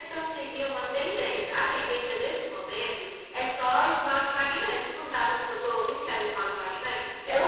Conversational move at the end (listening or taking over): listening